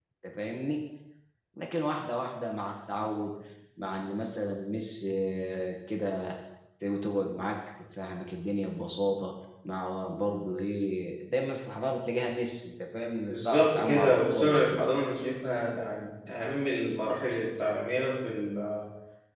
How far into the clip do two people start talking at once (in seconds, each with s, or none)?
13.3 s